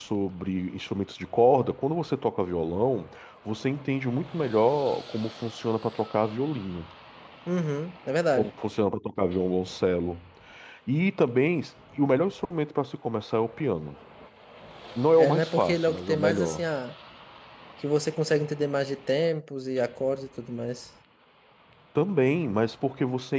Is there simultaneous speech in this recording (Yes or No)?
Yes